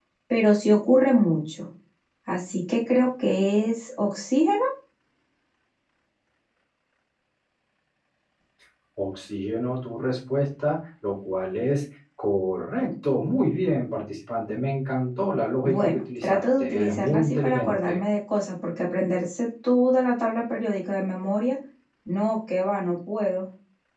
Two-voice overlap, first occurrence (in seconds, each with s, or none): 15.6 s